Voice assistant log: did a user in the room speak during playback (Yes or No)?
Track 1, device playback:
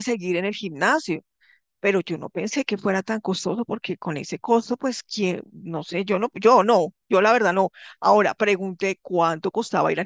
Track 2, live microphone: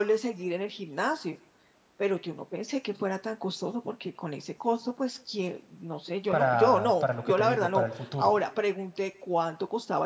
Yes